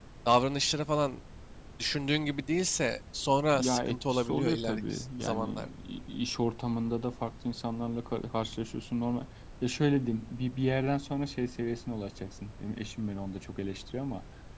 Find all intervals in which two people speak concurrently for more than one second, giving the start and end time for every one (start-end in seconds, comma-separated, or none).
3.6-5.7